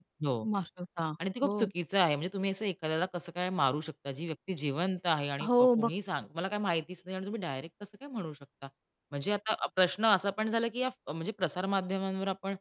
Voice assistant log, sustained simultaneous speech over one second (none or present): none